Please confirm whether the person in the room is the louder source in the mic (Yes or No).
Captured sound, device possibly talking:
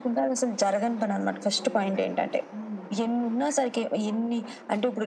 No